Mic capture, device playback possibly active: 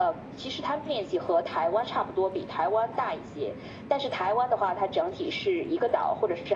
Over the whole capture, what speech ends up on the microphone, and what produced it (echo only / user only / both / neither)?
echo only